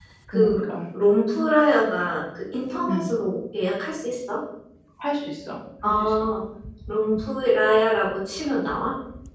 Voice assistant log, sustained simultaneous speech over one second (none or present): none